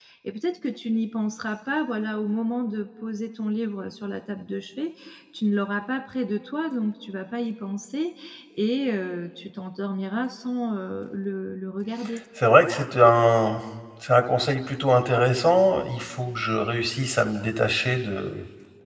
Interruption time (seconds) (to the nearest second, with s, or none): none